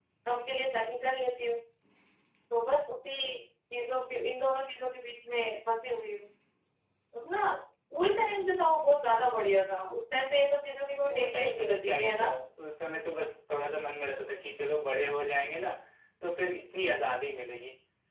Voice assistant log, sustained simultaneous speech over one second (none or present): present